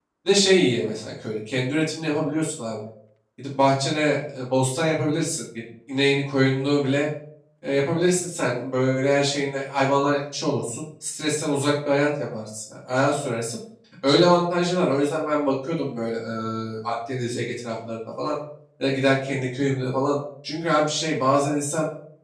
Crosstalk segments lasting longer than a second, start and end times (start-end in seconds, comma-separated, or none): none